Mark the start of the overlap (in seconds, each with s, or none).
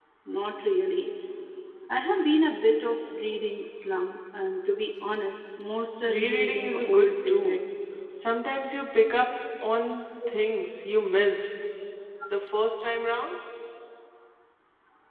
6.1 s